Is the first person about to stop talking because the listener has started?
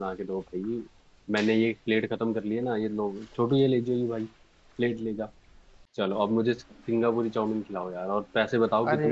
Yes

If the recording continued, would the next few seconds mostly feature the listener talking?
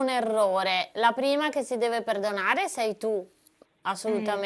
No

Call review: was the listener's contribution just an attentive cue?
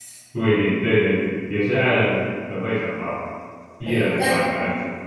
No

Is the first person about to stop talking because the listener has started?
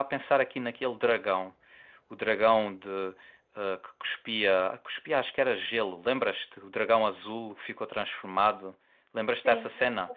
Yes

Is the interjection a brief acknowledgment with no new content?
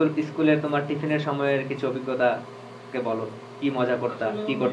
No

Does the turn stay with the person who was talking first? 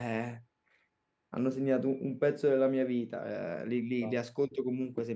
Yes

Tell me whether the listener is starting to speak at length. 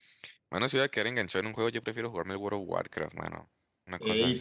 Yes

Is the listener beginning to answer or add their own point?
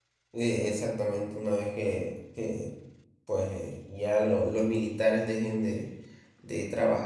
No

